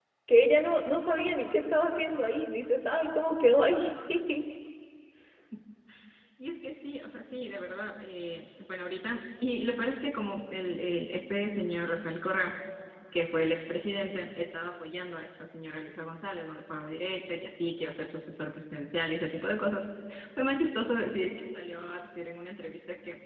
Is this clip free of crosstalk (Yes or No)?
Yes